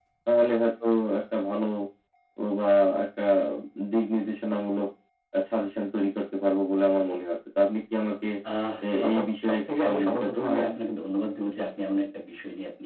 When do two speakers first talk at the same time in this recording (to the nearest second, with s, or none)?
9 s